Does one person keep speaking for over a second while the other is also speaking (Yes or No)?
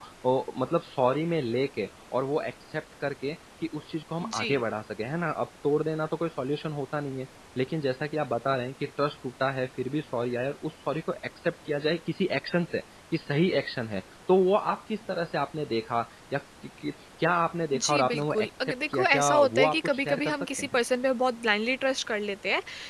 Yes